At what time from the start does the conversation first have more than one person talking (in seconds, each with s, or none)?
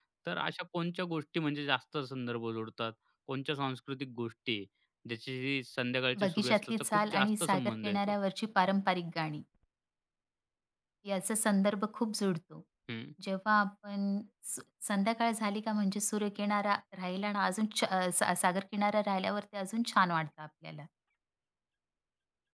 6.2 s